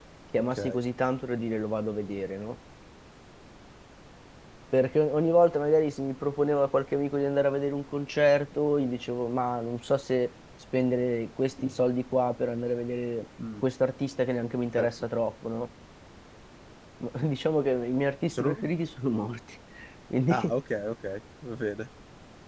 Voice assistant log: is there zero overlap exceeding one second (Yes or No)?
Yes